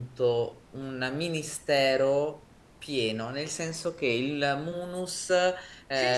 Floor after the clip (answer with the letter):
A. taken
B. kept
A